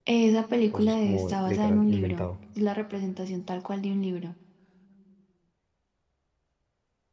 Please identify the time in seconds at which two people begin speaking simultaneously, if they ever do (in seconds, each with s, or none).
0.7 s